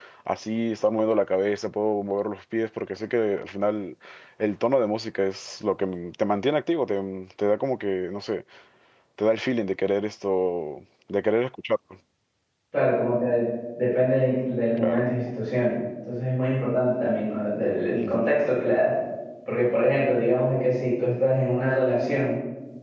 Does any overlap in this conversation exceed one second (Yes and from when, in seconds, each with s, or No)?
No